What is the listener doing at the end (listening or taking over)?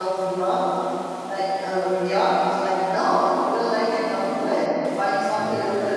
taking over